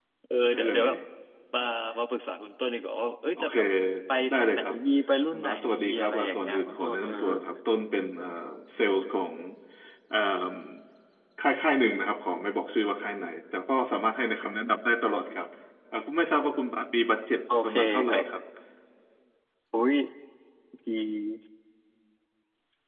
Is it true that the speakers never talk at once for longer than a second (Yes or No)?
No